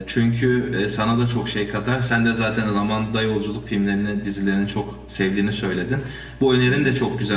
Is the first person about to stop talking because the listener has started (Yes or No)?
No